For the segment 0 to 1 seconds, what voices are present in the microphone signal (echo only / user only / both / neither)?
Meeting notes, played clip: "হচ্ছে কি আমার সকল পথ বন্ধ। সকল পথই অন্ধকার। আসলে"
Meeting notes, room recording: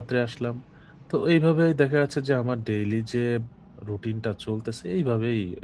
user only